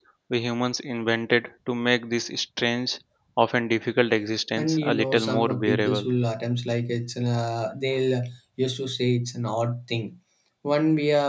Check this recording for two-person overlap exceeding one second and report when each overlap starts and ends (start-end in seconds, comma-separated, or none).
4.6-6.1